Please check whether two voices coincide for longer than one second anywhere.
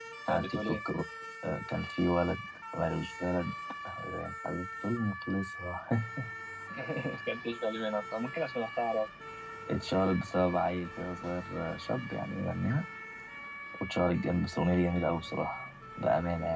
No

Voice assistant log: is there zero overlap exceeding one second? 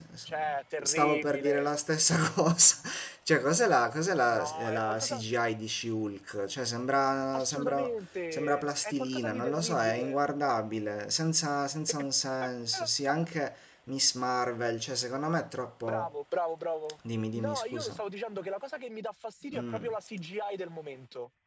No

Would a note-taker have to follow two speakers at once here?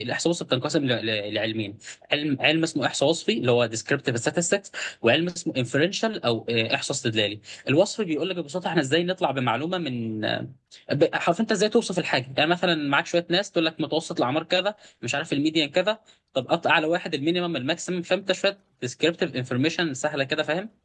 No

